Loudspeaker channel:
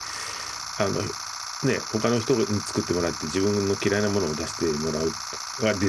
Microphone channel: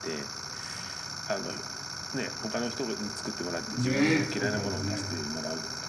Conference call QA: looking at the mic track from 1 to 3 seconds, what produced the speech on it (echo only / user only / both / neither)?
echo only